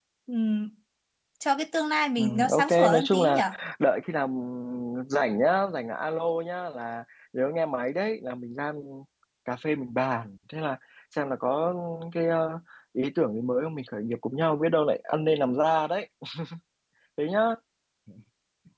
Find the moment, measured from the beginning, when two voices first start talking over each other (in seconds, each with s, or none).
2.2 s